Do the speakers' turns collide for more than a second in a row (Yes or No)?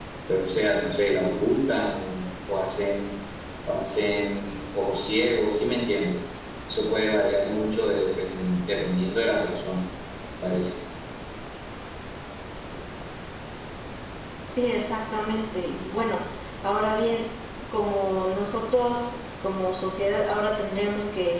No